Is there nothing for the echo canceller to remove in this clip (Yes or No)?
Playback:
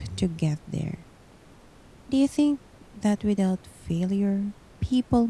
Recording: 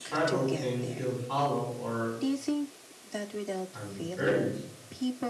No